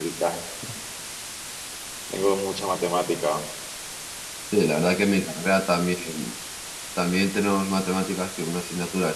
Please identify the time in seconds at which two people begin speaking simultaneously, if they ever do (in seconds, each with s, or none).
none